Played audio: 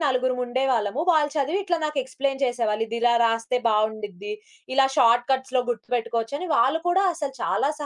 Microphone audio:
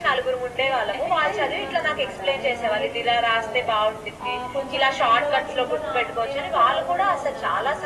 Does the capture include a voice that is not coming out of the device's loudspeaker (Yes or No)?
Yes